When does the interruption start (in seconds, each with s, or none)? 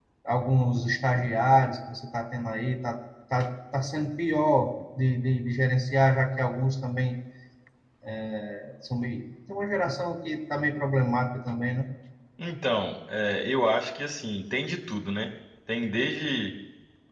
none